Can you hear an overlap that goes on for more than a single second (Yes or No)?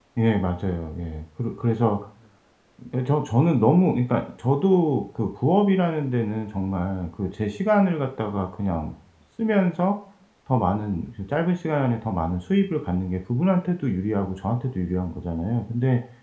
No